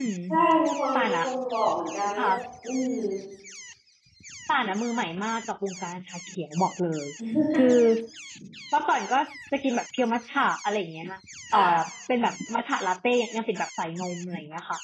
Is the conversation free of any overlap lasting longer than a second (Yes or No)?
Yes